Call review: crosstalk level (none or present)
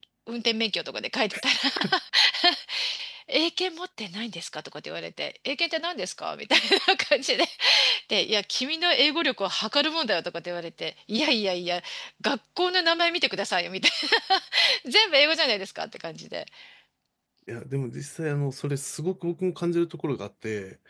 none